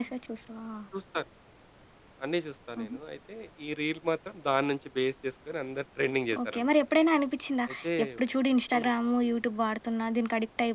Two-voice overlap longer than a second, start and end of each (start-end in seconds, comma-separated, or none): none